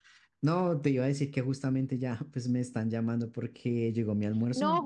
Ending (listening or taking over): taking over